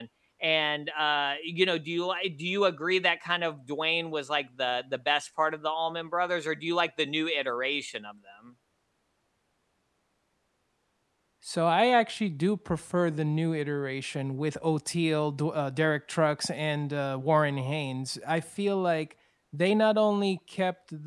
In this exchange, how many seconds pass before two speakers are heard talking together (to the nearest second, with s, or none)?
none